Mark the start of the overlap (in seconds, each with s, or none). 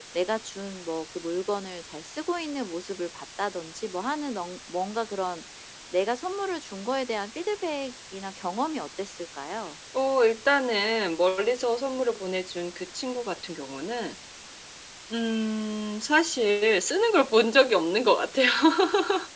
none